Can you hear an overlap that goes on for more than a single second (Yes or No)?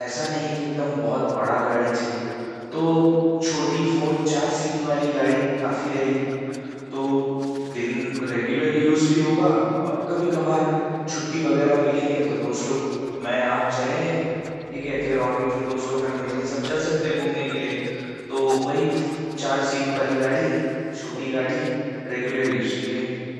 No